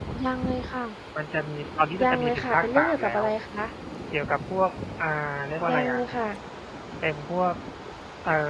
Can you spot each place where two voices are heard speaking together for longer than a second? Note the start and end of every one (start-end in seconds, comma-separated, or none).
2.0-3.2